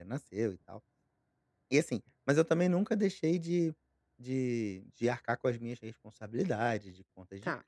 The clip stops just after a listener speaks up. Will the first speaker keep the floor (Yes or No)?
Yes